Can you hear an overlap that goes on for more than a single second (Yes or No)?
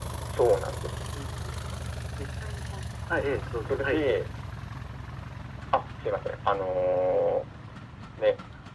No